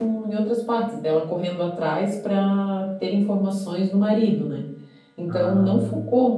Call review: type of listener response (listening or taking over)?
listening